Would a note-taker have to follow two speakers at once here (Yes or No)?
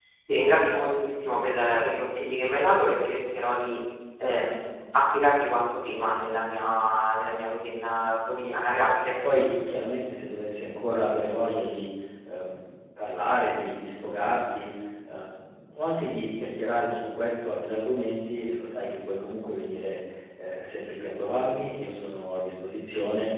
No